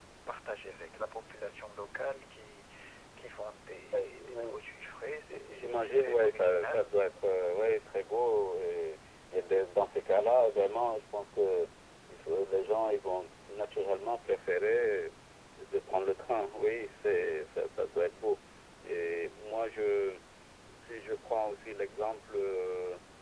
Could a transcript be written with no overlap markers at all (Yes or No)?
No